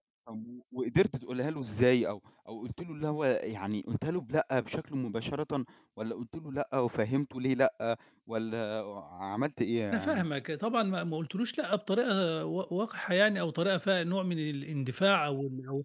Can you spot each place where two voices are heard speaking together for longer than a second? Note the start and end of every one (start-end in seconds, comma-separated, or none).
none